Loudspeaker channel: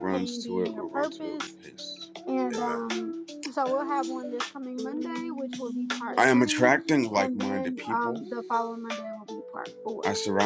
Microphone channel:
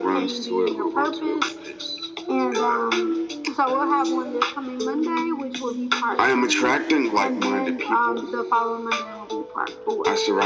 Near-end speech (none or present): none